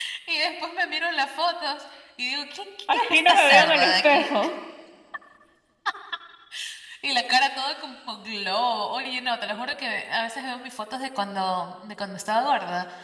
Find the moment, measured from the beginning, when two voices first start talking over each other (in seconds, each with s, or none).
2.9 s